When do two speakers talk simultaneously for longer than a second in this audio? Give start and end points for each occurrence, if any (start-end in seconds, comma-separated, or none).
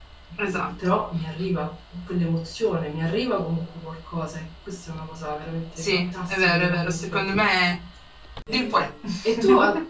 5.8-7.2